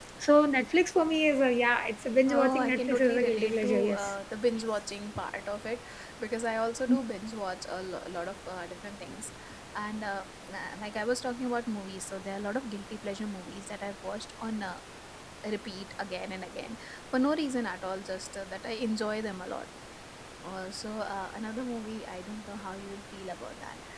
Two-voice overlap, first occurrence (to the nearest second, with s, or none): 2 s